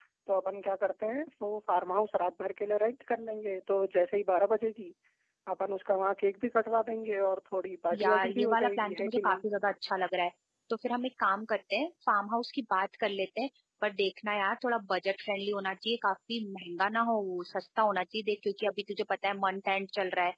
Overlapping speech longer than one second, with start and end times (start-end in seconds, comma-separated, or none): 8.0-9.4